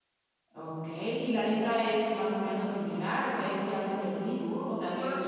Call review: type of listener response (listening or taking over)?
taking over